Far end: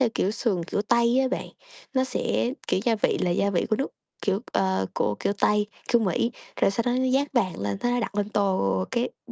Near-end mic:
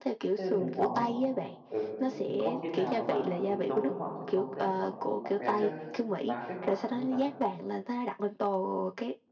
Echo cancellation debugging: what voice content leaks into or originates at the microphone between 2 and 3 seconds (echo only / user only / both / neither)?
both